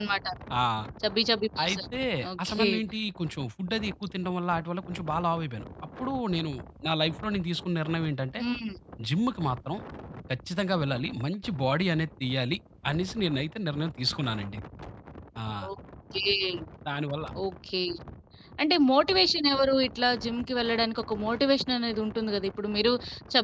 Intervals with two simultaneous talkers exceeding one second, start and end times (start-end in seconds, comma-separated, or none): none